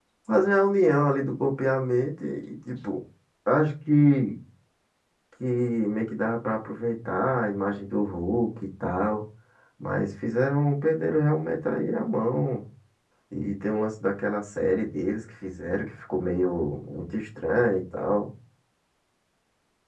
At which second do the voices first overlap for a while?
none

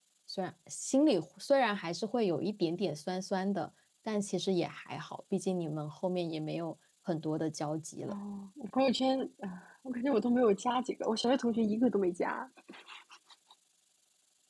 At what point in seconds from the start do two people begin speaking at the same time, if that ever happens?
none

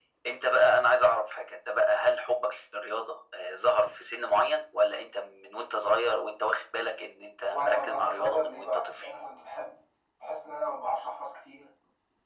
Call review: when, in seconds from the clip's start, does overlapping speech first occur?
8 s

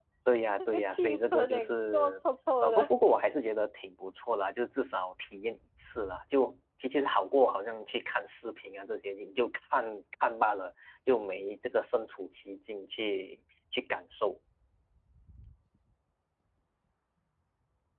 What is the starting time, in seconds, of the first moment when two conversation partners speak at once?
1 s

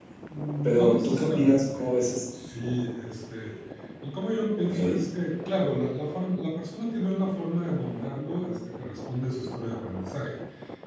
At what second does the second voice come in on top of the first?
1 s

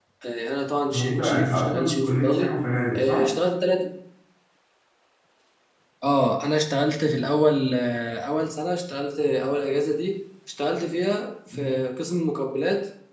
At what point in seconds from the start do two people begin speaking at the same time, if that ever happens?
1 s

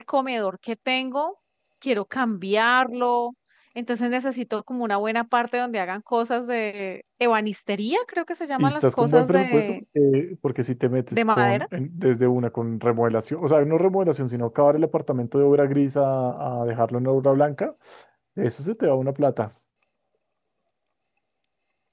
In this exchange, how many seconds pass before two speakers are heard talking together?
9 s

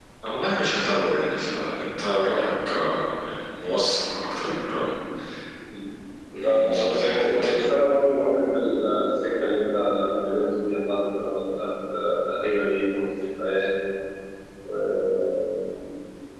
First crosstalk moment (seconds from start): 6 s

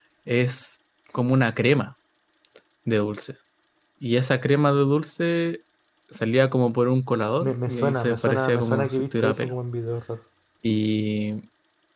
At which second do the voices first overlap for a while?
7 s

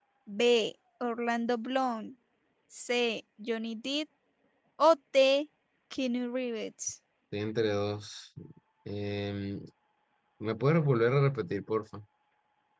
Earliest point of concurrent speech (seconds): none

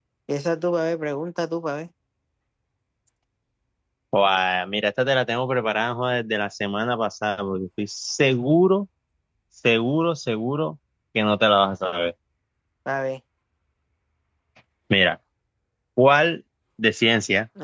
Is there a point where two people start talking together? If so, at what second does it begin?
none

